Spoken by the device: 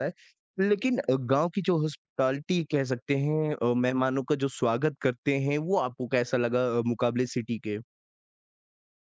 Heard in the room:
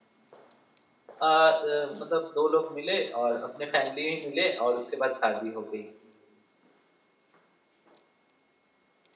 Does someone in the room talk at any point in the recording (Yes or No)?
Yes